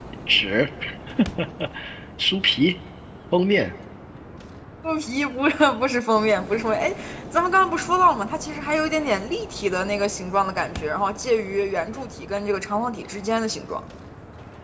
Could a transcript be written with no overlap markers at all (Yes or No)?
Yes